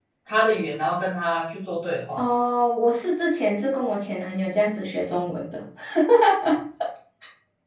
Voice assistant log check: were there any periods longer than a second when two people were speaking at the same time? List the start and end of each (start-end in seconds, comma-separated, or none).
none